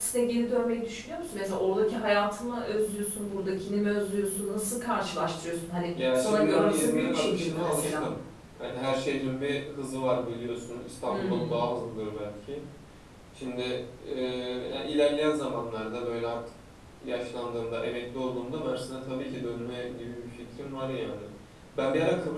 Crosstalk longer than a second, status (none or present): present